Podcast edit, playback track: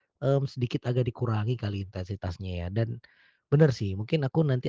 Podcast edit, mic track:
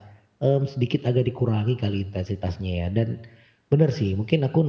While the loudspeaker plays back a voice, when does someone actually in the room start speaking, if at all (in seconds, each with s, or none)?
none